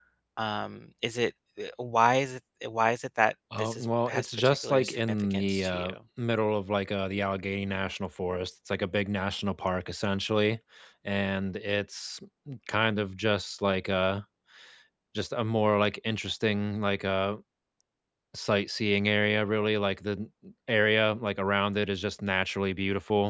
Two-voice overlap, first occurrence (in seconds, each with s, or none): 3.5 s